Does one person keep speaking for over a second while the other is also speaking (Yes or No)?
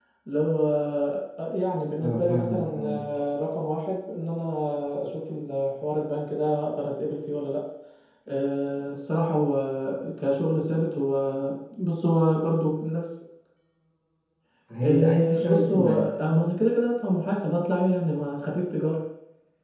Yes